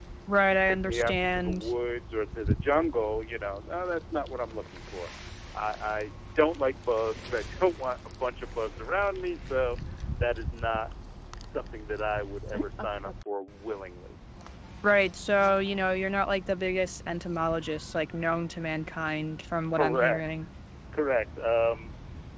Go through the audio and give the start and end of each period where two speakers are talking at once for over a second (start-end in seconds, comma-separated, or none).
0.5-1.7